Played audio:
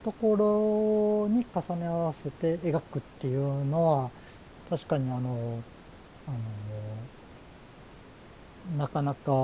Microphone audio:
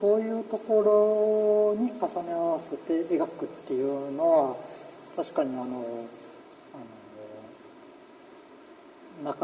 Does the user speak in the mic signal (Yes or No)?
No